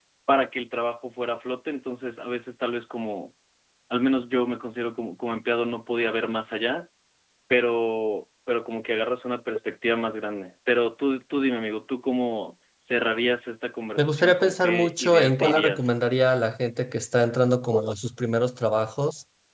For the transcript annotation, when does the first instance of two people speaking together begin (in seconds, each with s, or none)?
14.0 s